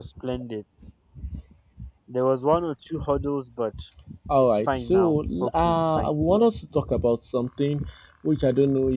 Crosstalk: present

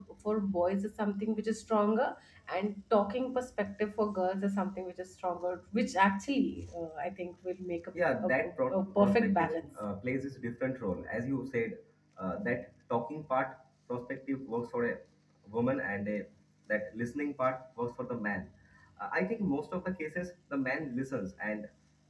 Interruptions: present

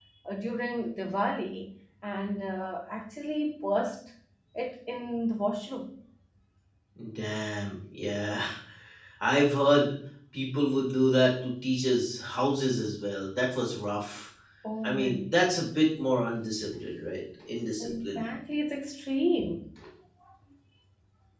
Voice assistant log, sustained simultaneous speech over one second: none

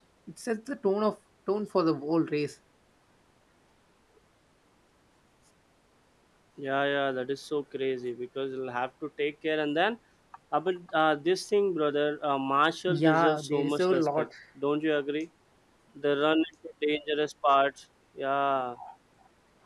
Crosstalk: present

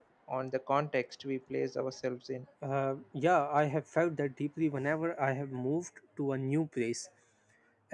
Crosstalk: none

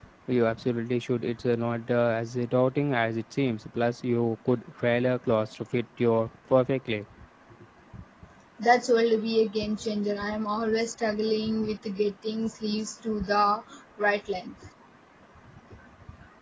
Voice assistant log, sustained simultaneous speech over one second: none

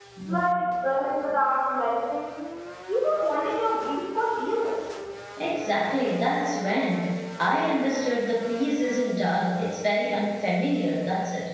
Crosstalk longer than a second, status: none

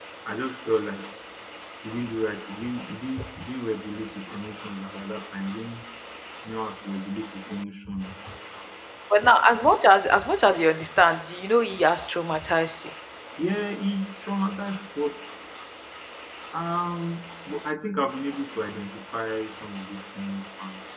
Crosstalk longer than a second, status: none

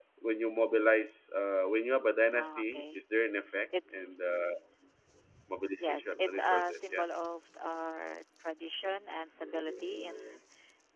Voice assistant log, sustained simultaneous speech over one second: present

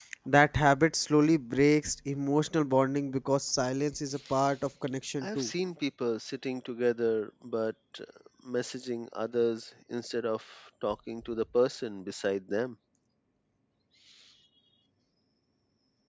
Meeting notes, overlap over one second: none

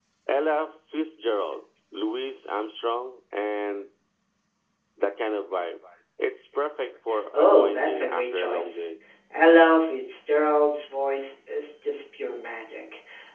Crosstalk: present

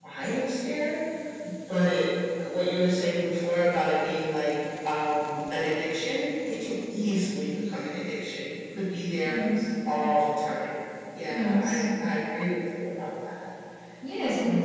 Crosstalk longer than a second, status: none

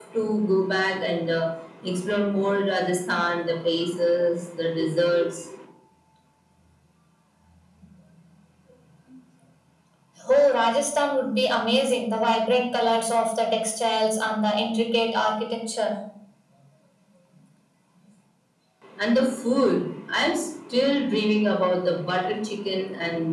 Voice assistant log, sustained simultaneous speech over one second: none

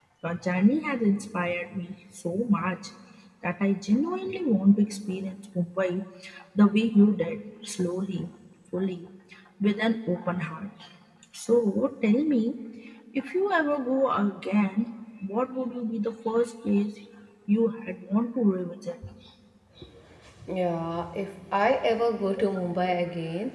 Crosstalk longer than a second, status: none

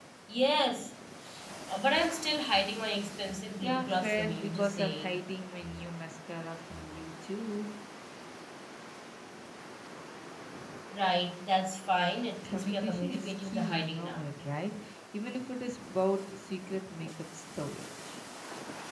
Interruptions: present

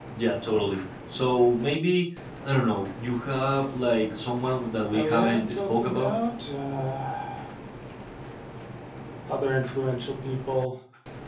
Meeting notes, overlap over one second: present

